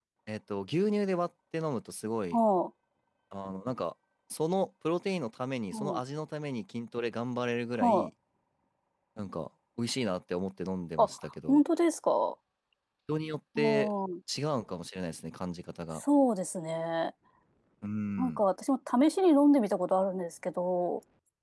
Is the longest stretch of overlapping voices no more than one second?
Yes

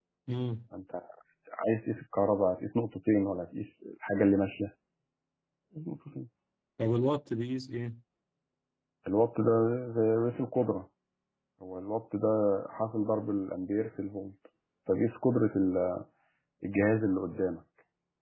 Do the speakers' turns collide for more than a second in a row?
No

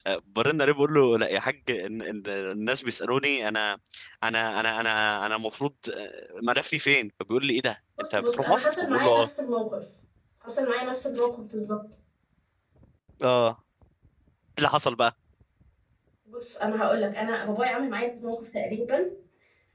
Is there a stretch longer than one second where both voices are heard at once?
Yes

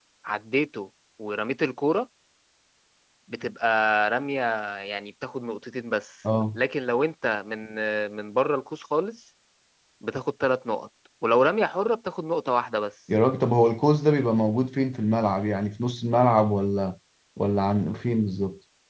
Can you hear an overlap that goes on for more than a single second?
No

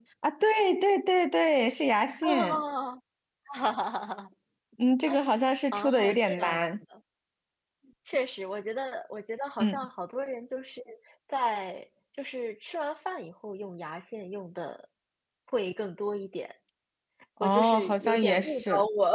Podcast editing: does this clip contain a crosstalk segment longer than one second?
Yes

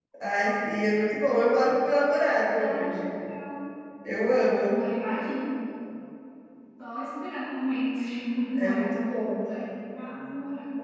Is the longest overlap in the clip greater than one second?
No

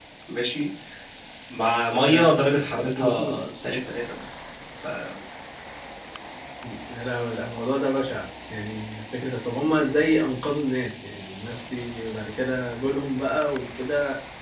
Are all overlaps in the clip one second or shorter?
Yes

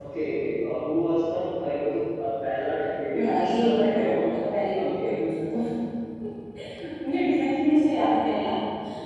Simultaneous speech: Yes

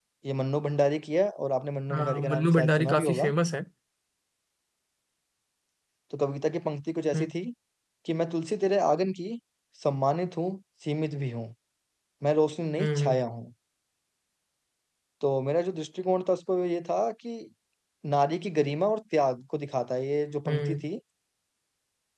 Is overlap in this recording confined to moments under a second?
No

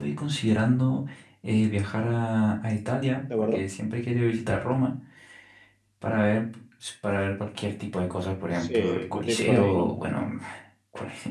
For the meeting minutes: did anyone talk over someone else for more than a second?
Yes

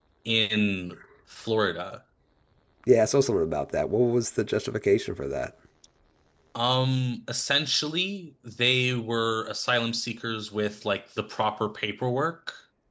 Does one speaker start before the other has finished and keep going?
No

